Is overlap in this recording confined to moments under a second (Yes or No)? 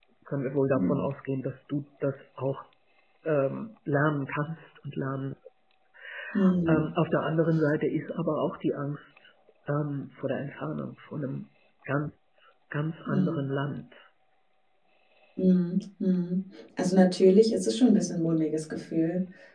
Yes